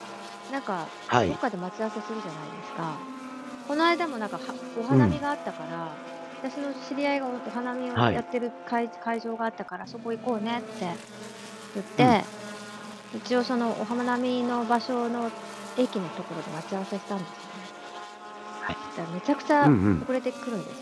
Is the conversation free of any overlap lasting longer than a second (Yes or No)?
Yes